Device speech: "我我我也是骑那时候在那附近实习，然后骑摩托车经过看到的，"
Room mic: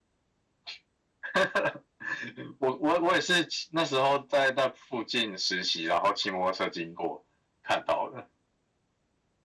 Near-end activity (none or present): none